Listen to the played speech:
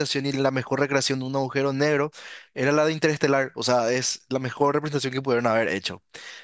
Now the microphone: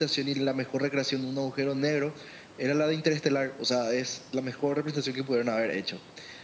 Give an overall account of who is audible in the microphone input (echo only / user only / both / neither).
echo only